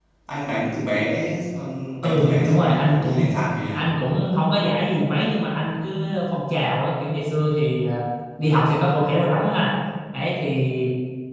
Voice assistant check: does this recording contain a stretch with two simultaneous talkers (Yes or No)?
Yes